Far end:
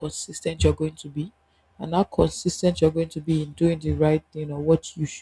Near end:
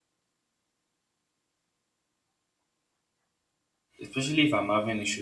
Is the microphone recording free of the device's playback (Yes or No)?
Yes